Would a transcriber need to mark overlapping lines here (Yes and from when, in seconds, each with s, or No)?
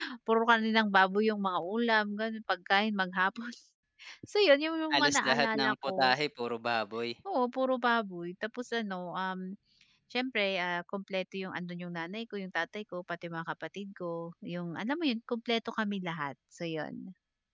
Yes, from 4.9 s